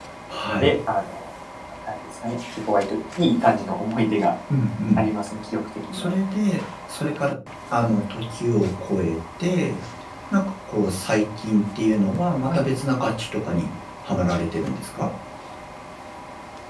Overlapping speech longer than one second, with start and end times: none

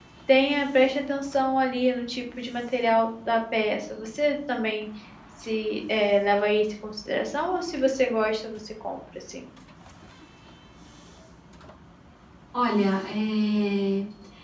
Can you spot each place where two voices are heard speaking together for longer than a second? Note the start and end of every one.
none

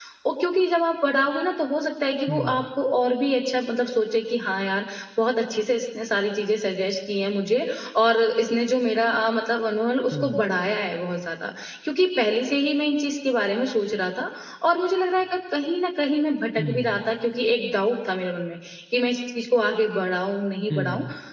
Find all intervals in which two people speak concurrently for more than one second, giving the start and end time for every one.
none

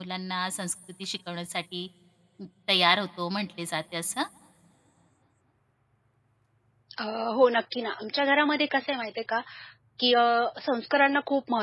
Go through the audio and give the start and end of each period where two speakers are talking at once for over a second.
none

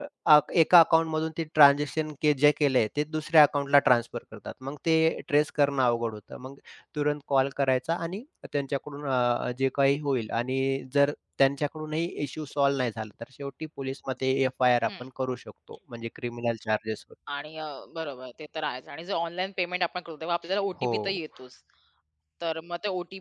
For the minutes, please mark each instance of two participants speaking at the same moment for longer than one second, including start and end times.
none

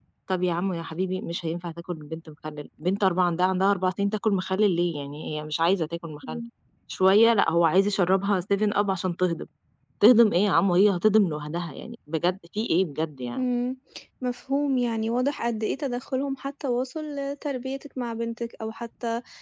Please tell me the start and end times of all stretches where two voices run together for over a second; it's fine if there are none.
none

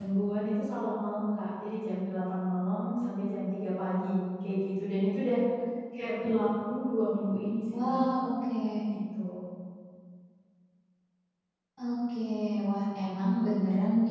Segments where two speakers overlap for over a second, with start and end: none

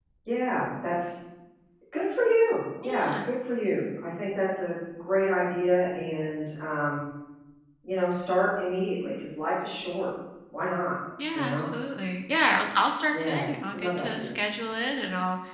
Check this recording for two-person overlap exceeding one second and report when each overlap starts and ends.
13.1-14.3

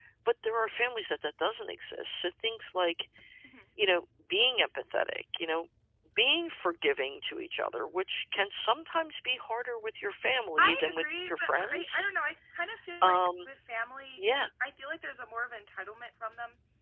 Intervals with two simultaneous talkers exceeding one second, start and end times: 10.6-12.1

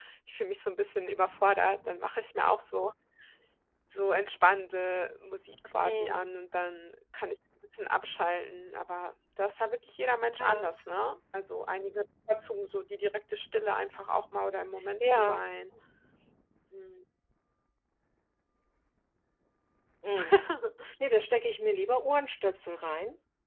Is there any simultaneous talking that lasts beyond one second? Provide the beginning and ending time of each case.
none

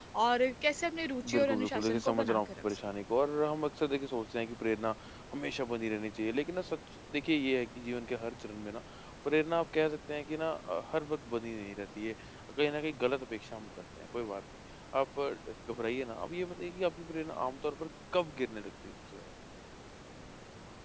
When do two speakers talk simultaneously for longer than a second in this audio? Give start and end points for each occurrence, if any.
1.3-2.8

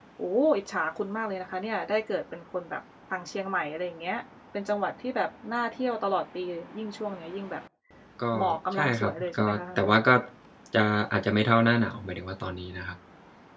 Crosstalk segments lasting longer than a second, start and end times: 8.7-9.9

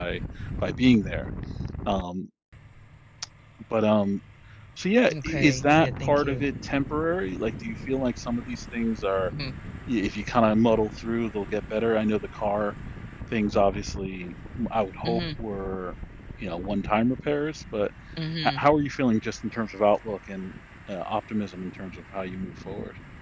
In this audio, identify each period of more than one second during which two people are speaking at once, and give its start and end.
5.1-6.4

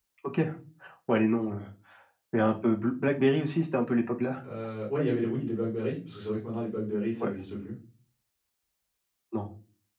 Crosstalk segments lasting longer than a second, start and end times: none

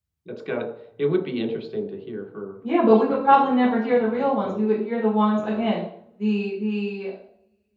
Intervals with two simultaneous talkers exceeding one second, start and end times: 2.9-4.6

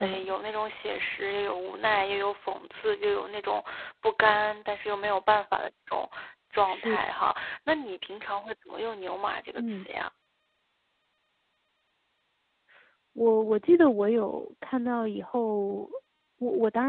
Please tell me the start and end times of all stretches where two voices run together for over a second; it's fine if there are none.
none

